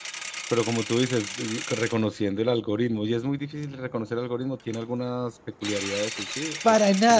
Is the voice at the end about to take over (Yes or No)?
Yes